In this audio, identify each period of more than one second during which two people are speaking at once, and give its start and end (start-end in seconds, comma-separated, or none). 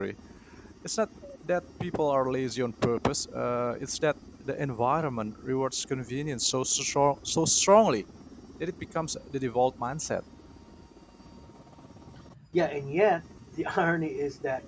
none